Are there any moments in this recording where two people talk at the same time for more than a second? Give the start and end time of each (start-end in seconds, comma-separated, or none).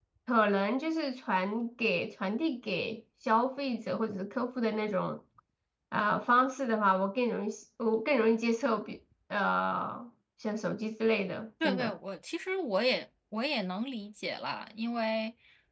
none